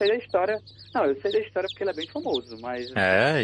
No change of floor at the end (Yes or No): No